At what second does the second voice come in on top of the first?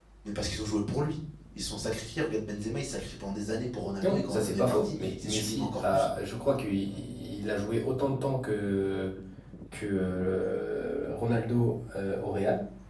4 s

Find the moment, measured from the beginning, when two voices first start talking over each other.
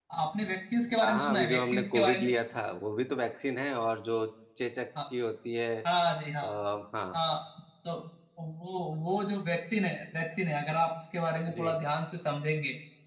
1 s

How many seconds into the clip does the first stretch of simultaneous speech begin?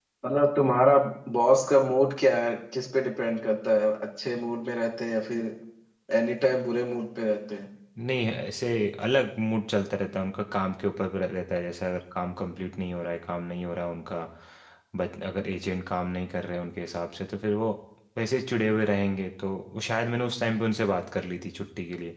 none

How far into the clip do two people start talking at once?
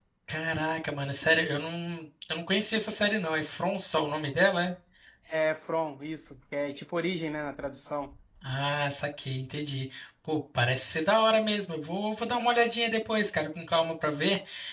none

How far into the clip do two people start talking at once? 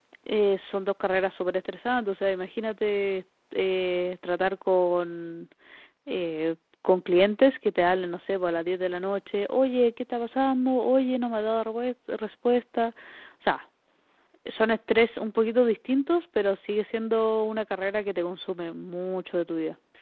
none

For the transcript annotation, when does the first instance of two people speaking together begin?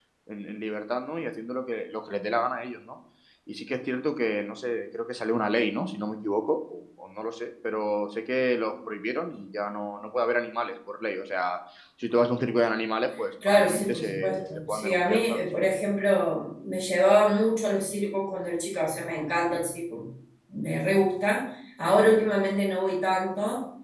13 s

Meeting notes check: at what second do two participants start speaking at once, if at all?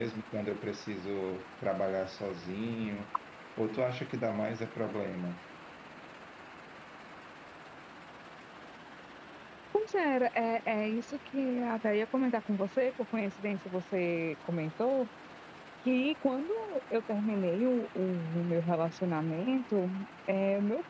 none

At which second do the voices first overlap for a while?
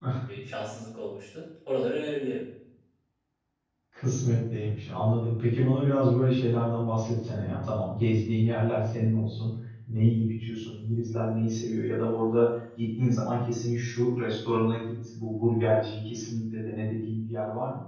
none

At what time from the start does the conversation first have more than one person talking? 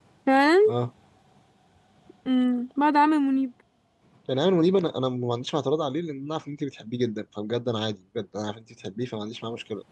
none

